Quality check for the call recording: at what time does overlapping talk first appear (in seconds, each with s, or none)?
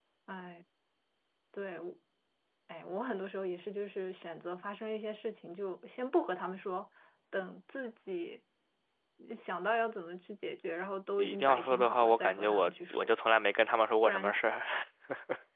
11.2 s